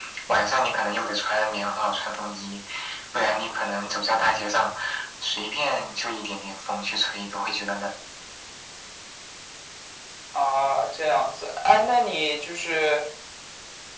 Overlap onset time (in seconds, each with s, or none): none